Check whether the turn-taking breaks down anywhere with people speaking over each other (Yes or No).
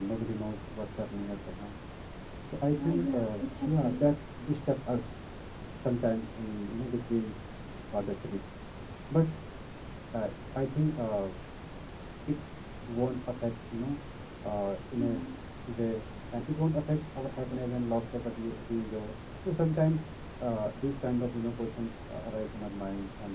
Yes